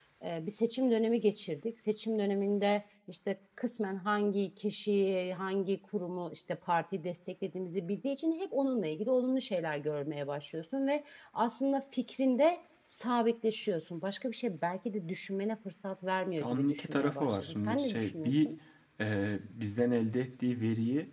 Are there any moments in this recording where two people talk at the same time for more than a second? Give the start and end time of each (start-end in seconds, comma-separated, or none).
16.4-18.5